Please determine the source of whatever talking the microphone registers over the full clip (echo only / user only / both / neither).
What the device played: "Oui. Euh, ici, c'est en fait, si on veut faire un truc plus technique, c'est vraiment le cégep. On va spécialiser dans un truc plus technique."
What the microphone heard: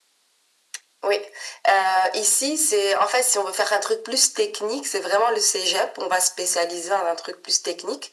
echo only